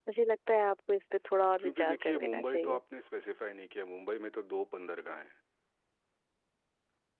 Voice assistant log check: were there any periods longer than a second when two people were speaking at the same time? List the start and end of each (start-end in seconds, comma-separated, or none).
1.6-2.8